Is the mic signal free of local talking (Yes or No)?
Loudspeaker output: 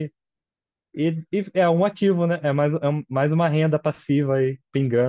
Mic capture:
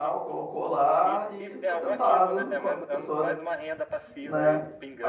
No